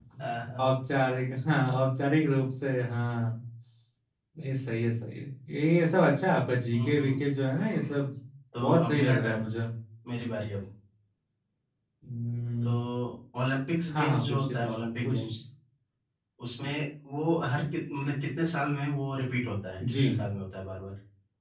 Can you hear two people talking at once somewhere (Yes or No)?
Yes